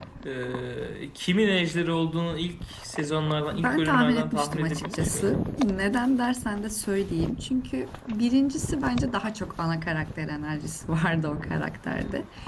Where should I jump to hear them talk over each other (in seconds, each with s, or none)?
3.5 s